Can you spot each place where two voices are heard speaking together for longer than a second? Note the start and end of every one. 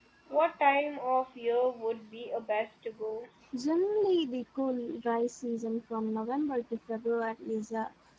none

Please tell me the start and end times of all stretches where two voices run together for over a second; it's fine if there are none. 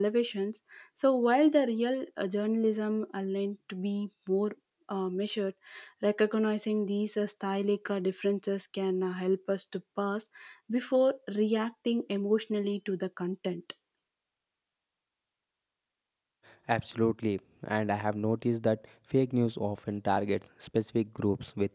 none

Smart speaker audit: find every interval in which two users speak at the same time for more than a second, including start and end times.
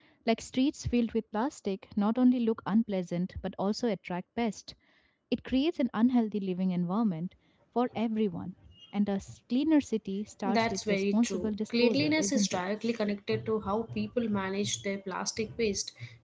10.4-12.6

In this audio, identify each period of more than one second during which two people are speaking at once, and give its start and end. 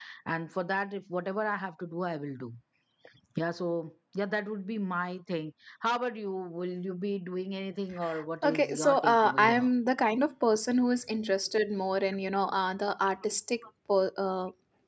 8.4-9.6

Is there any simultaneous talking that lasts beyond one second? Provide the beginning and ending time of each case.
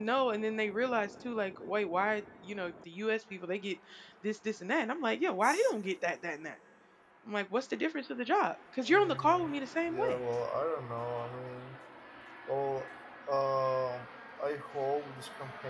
8.9-10.2

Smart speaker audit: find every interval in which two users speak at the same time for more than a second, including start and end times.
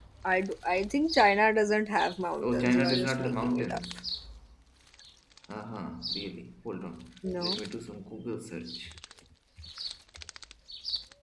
2.4-3.8

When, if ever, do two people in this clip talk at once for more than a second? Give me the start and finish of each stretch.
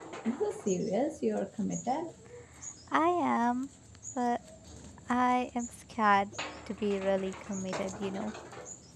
none

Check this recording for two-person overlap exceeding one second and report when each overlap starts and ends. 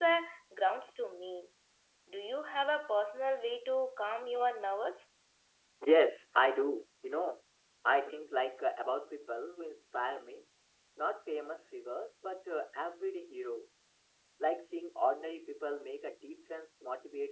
none

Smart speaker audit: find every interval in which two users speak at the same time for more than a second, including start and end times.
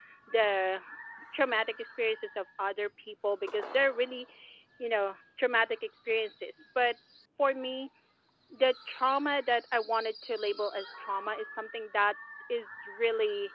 none

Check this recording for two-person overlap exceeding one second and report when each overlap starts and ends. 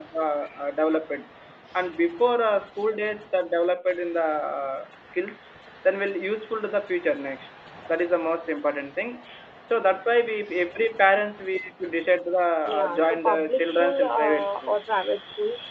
12.7-14.7

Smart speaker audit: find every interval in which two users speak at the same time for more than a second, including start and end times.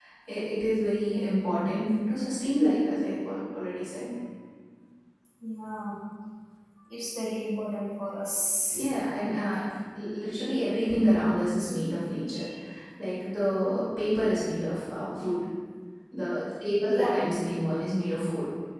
none

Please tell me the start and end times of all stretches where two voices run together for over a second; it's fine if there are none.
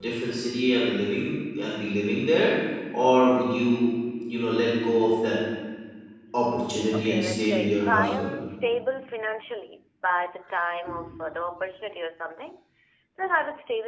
6.9-8.4

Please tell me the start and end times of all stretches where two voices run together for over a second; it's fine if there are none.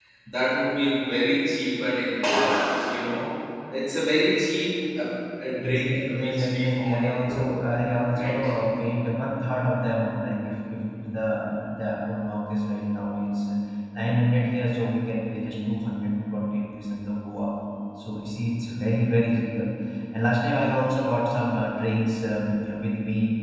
5.6-7.5

